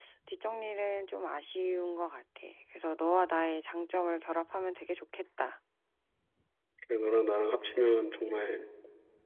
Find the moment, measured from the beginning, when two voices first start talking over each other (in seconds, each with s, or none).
none